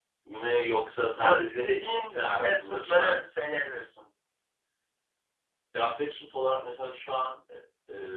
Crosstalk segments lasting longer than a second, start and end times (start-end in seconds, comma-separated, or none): 1.1-3.2